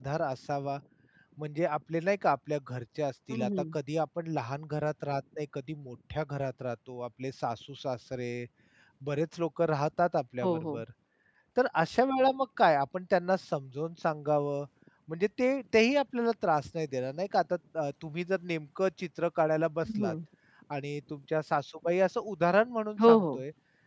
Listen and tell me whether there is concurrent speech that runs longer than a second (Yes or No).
No